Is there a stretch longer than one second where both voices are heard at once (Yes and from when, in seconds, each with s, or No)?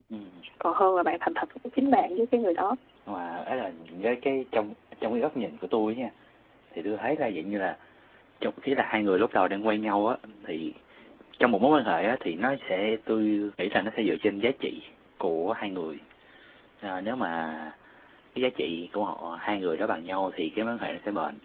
No